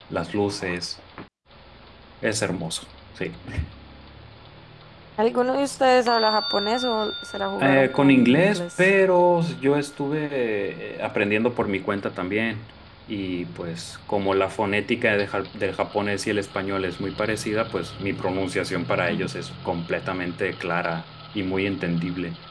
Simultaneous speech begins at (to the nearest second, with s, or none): 8 s